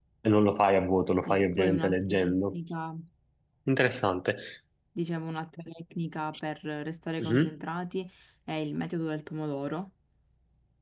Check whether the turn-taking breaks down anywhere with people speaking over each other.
Yes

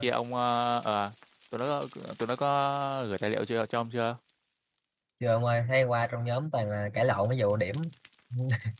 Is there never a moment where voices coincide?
Yes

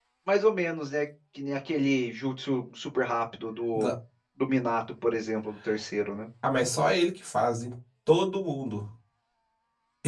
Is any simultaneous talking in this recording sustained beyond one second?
No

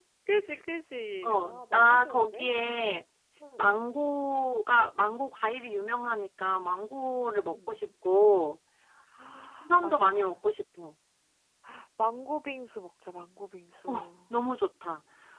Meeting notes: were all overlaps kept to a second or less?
No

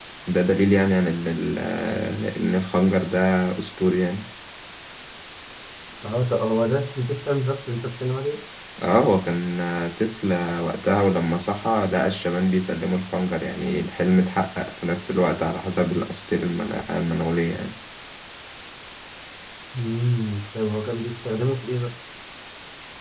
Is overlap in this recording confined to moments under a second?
Yes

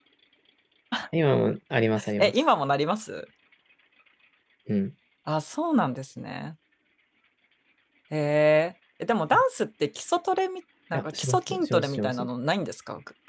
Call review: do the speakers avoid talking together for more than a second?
No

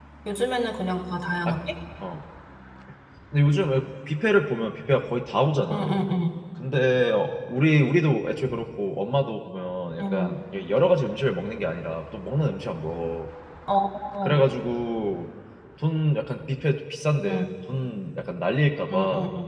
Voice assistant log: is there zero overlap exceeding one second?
Yes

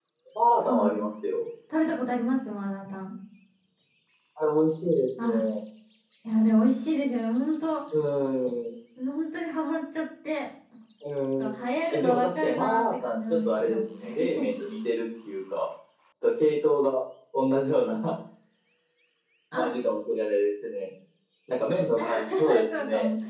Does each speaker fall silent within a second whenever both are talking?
No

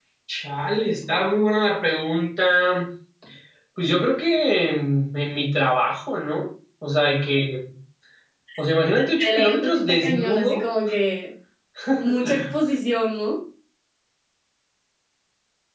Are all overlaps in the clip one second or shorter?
No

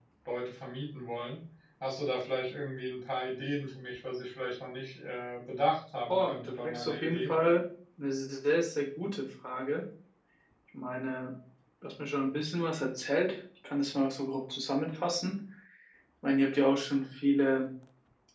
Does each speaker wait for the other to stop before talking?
No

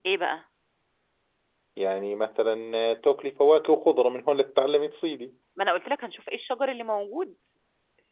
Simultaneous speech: No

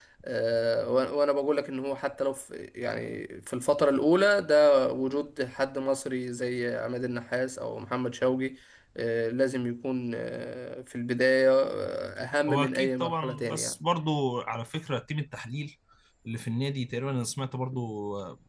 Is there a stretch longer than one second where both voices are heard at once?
Yes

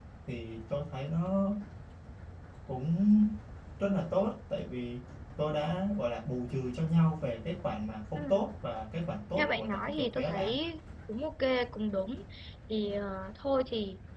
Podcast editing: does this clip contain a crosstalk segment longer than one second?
Yes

